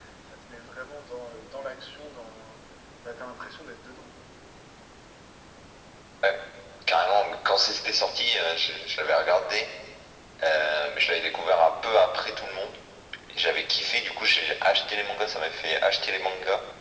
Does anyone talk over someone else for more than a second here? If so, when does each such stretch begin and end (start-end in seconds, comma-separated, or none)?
none